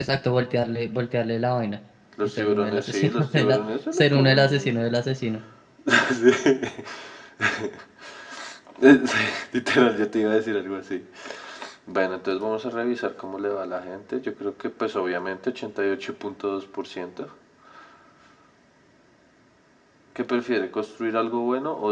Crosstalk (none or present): present